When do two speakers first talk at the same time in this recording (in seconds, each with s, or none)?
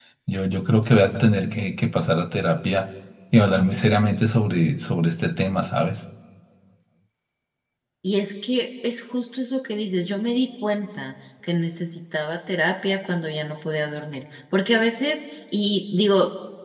none